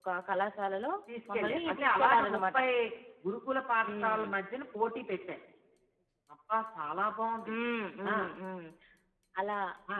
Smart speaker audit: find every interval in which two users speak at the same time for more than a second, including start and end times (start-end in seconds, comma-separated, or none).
1.3-2.6